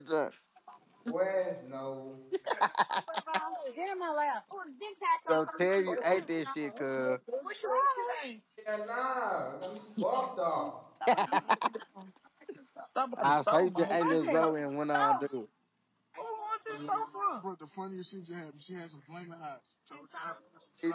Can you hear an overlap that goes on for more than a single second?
Yes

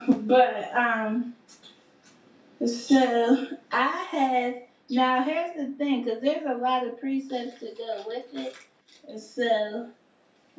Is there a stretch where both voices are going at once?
No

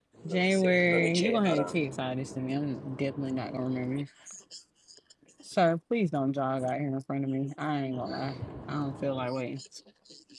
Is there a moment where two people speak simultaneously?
Yes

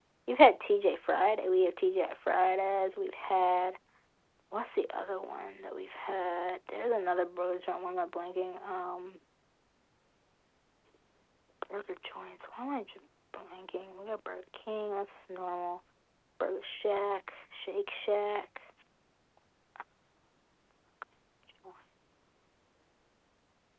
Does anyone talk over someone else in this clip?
No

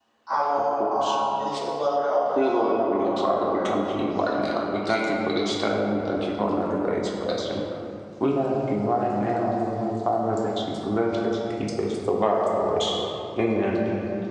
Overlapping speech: Yes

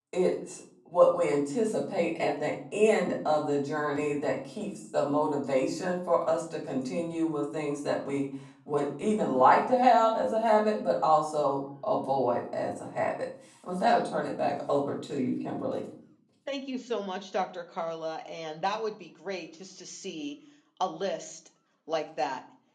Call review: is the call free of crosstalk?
Yes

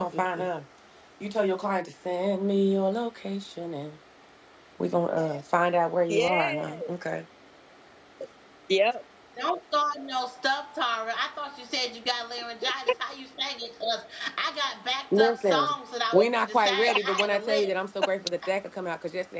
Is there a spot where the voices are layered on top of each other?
Yes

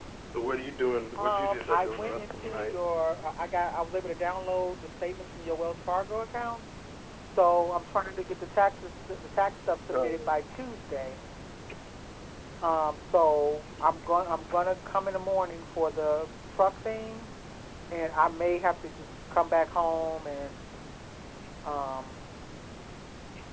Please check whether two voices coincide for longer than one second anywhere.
Yes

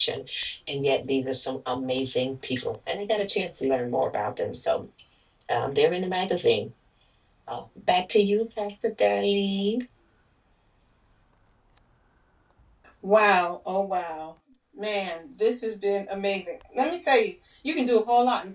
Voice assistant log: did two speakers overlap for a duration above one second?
No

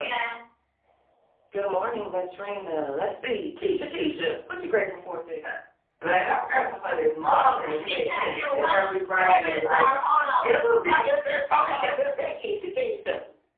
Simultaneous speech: Yes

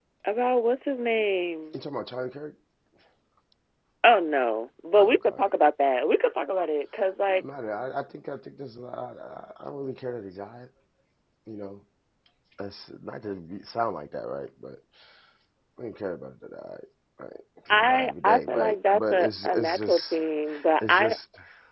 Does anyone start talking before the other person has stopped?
Yes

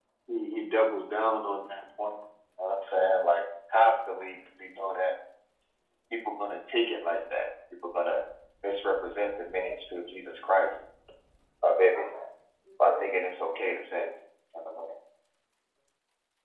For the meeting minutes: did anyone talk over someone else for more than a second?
Yes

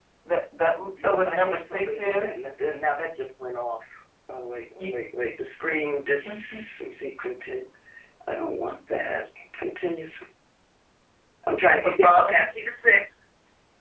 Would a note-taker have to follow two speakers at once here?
Yes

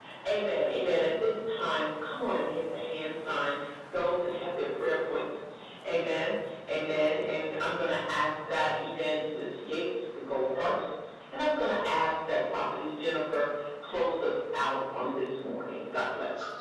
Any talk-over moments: No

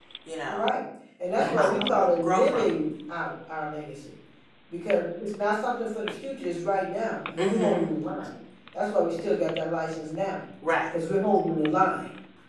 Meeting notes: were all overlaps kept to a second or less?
No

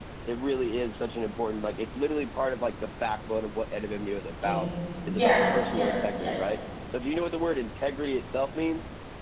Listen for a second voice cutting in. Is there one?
Yes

